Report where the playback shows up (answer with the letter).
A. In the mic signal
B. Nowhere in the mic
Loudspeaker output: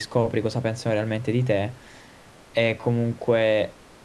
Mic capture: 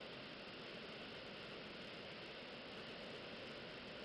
B